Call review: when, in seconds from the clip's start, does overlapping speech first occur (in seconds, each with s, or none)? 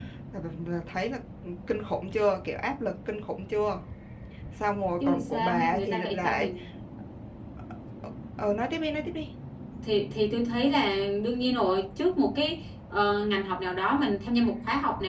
5.0 s